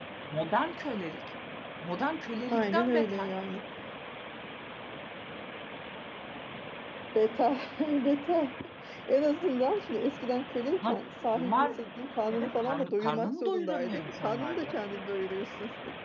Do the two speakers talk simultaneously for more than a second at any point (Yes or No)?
Yes